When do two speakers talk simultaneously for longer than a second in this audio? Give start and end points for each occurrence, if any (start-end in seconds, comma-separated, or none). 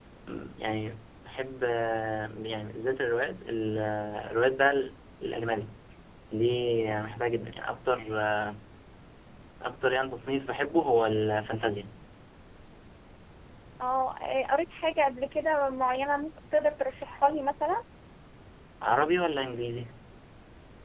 none